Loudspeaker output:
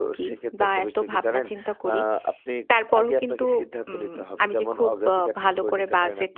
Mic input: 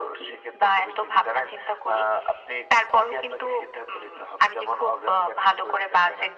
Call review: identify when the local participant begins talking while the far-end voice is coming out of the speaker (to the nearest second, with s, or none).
none